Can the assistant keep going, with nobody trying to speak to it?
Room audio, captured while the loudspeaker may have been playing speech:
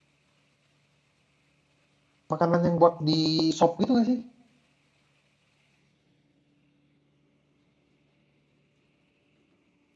No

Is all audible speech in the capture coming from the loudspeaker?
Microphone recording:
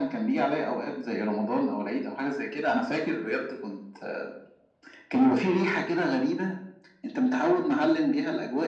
Yes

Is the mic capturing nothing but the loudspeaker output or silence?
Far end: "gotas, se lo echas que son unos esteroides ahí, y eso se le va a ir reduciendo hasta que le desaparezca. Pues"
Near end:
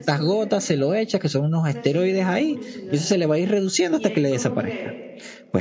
No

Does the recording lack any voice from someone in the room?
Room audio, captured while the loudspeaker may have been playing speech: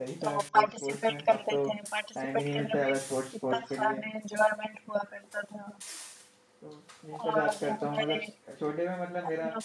No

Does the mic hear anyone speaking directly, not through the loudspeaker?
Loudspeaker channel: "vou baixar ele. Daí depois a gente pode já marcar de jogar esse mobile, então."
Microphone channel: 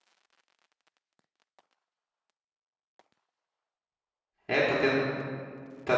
Yes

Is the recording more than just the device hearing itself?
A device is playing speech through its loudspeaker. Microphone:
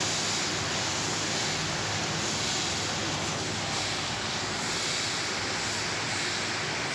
No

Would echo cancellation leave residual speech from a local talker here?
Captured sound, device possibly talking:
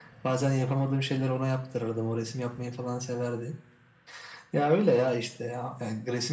No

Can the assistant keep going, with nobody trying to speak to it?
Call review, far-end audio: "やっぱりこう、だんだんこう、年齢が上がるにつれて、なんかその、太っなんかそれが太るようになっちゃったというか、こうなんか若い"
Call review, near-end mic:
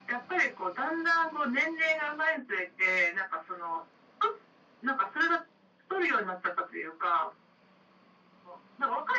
Yes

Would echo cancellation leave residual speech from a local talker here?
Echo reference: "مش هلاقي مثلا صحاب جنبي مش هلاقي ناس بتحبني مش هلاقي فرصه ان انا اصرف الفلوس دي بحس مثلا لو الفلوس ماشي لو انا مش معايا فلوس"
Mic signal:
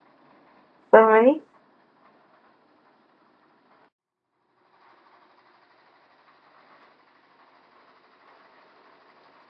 Yes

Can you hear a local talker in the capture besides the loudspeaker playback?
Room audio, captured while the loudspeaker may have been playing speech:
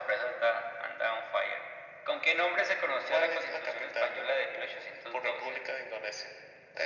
No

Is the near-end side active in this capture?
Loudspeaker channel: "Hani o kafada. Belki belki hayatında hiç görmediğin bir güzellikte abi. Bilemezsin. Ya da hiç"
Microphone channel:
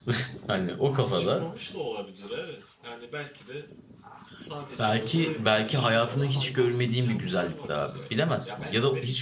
Yes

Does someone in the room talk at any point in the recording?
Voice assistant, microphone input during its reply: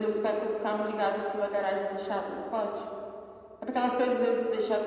No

